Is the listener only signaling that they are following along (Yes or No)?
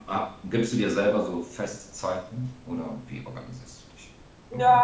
No